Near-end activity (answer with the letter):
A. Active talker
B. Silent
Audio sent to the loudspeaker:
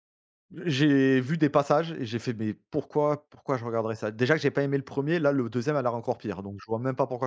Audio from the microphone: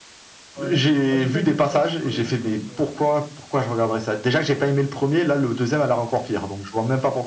A